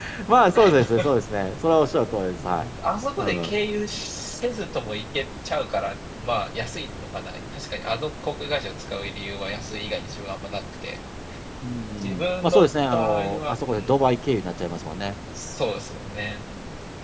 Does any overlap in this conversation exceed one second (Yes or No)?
Yes